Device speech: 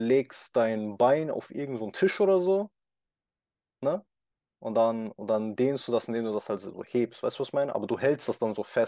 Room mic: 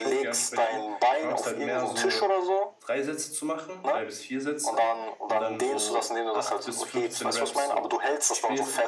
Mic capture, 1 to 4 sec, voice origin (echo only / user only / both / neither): both